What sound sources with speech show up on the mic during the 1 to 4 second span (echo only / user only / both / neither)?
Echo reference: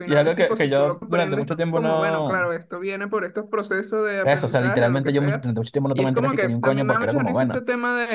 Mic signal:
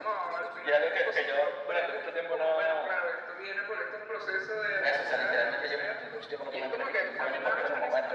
echo only